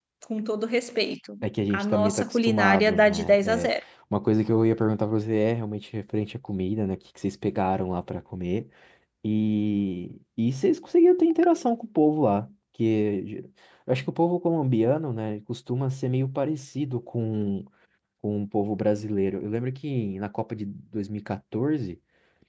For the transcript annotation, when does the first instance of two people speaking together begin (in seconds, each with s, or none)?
1.7 s